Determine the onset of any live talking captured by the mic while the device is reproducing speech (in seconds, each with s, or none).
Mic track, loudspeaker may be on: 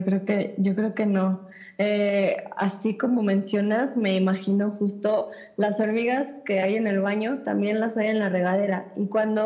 none